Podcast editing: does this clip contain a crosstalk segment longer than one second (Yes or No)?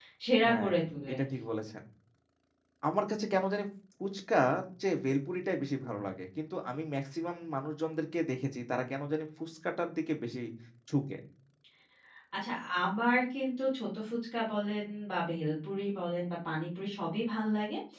No